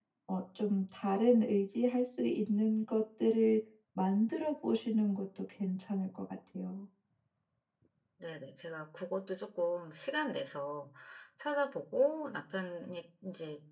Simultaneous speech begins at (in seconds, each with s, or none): none